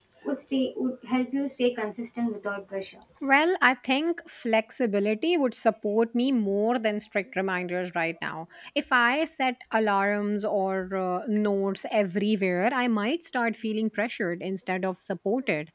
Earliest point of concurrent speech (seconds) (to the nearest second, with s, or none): none